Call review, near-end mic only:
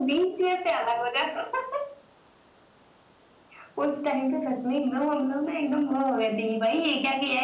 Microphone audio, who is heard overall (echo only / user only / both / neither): echo only